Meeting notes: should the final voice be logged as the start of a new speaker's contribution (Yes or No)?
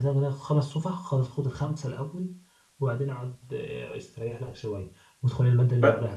No